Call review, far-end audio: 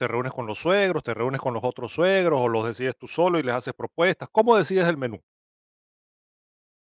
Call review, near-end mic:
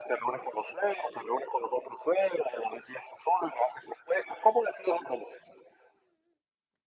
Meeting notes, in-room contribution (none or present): none